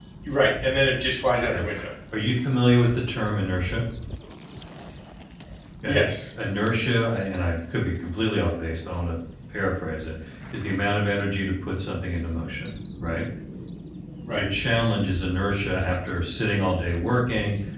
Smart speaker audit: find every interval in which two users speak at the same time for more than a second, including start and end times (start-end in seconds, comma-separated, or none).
none